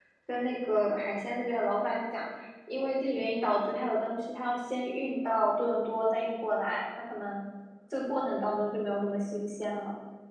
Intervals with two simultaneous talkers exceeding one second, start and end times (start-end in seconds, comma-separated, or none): none